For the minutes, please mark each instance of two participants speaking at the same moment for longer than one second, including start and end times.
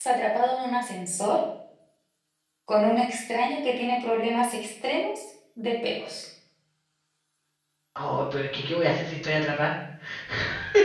none

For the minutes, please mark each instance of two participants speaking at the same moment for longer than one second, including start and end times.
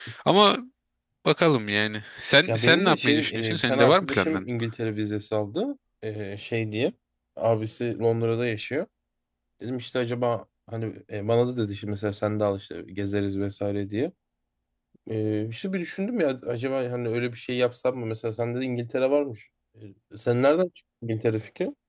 2.5-4.5

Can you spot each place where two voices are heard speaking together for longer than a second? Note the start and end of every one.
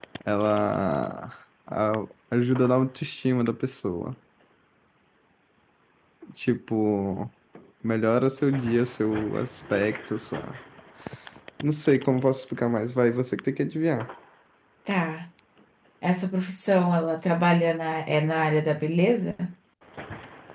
none

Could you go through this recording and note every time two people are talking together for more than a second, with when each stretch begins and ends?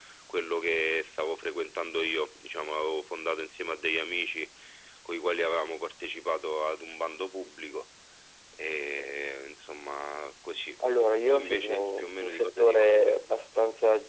11.3-13.2

